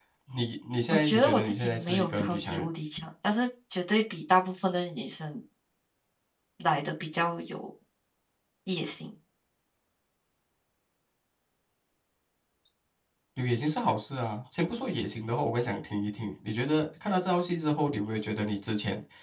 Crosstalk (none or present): present